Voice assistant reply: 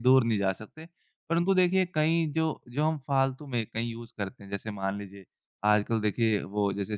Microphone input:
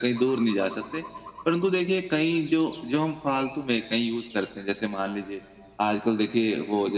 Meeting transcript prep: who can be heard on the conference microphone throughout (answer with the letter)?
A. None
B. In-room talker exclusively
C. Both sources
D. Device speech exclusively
D